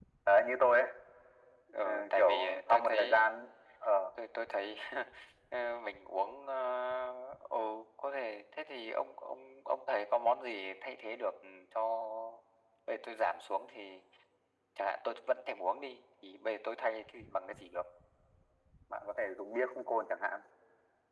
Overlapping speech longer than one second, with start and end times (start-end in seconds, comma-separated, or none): 1.8-3.3